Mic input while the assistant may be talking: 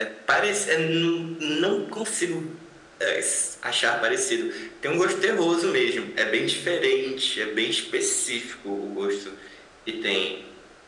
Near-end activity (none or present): none